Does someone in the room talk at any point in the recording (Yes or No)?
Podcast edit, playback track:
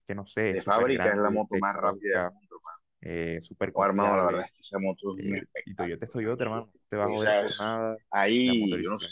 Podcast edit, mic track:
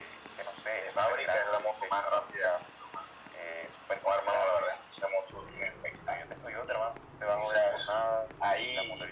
No